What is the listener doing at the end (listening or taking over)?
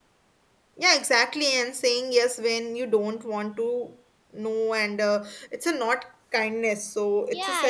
taking over